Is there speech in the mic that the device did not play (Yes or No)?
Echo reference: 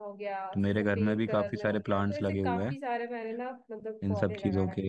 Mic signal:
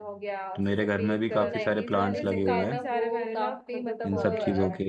Yes